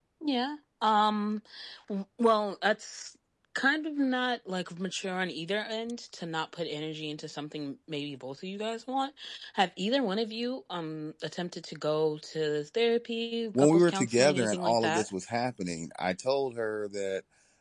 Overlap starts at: 14 s

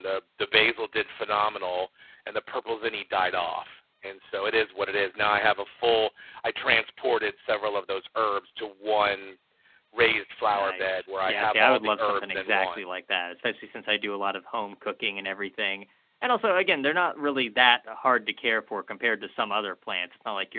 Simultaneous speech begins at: 11 s

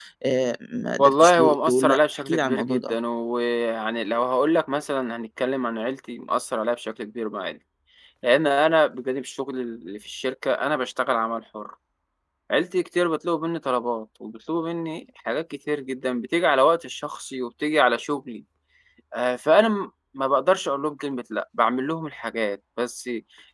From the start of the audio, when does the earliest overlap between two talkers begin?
1 s

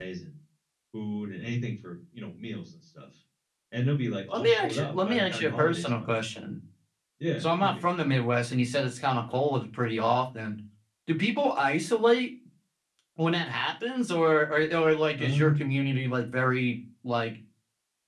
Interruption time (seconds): 4 s

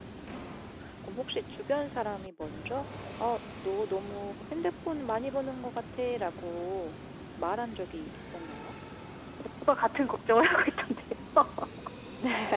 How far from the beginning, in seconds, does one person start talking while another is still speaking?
none

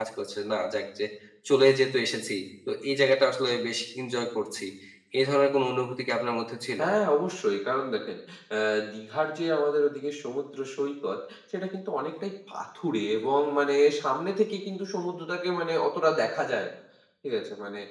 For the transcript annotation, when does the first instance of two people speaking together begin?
none

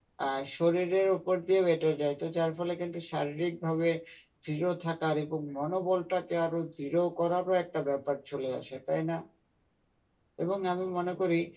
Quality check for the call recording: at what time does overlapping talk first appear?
none

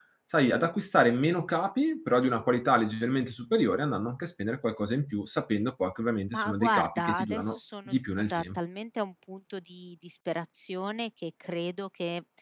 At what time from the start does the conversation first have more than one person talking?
6 s

